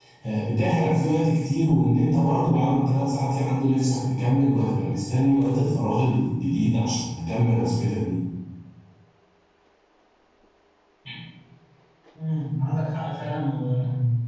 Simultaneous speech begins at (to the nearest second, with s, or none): none